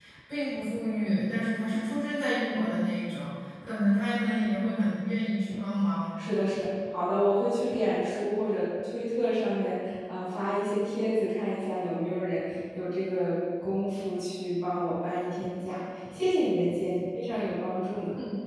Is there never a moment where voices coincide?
Yes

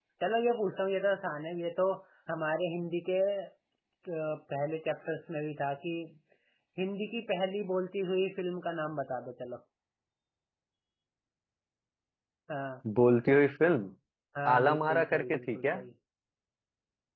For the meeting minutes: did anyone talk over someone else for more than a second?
Yes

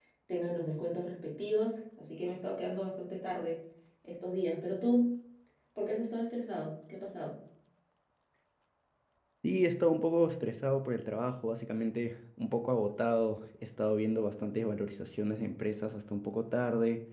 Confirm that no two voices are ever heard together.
Yes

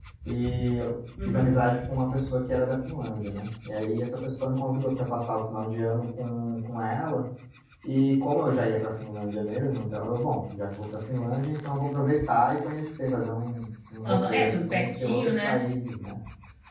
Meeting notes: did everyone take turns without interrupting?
No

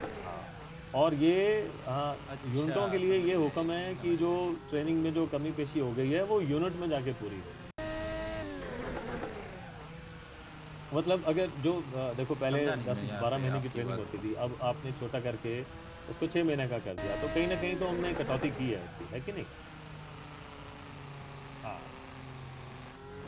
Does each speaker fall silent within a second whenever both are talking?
No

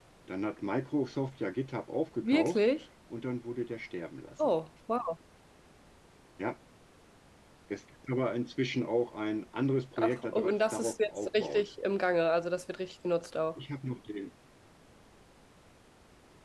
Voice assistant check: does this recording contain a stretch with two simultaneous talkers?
Yes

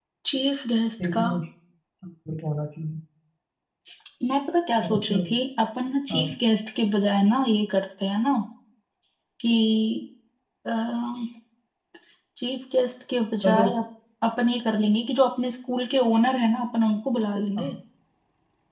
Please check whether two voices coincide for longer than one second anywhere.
No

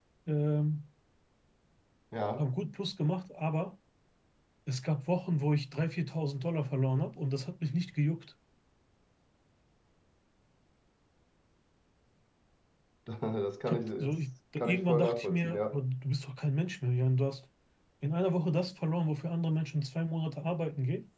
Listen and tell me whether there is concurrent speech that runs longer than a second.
Yes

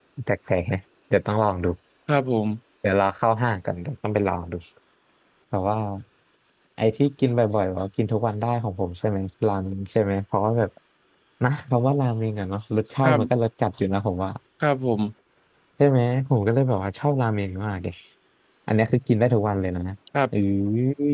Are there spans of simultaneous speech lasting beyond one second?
No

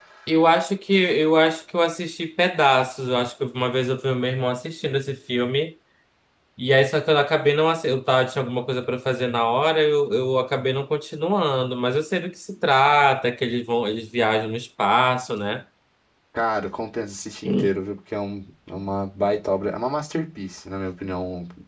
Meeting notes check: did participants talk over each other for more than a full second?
No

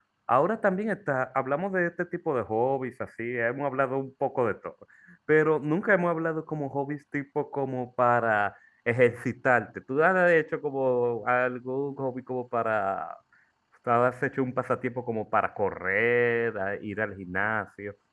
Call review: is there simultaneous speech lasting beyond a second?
No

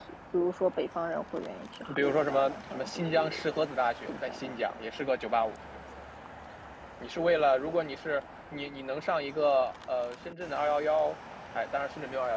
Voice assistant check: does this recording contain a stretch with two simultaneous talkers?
Yes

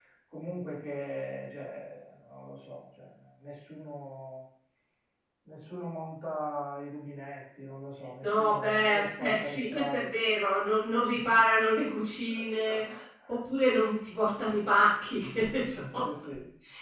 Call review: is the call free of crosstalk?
No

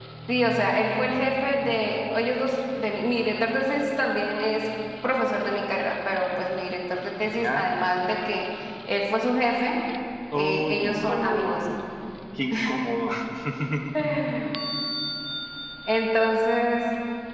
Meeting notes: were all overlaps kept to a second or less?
No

